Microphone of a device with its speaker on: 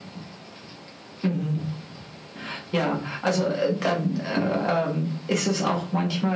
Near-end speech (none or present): none